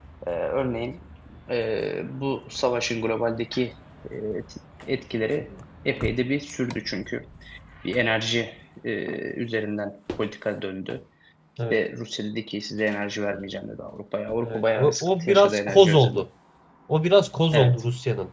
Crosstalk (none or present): present